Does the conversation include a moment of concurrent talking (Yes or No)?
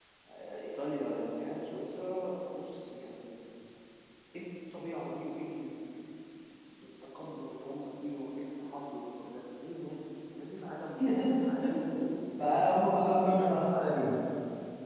Yes